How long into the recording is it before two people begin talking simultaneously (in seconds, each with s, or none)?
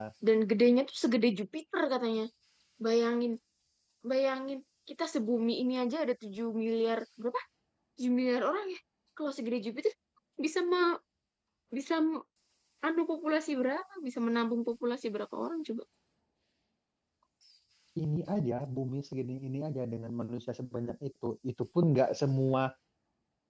none